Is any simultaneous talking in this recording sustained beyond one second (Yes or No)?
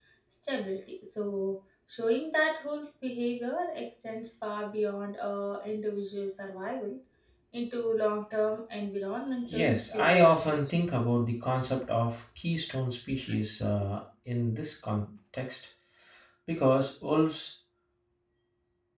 Yes